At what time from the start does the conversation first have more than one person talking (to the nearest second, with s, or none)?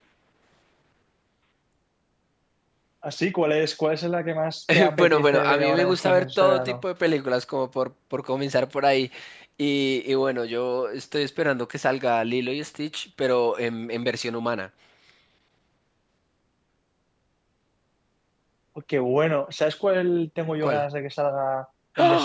5 s